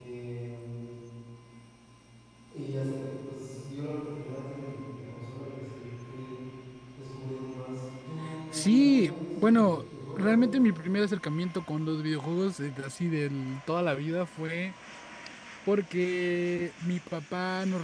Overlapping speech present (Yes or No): Yes